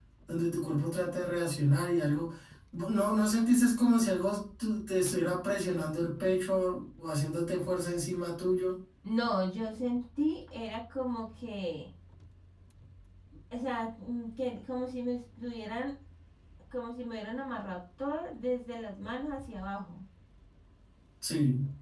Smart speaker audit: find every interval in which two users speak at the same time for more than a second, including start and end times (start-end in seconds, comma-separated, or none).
none